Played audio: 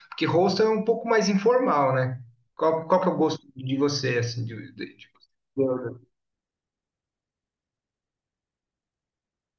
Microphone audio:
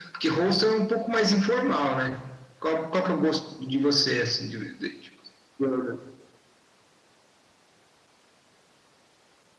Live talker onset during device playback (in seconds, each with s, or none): none